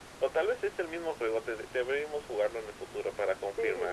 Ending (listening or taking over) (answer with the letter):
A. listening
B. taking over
B